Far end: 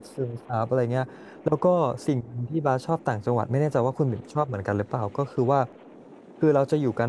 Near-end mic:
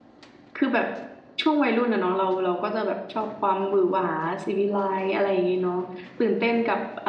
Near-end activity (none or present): present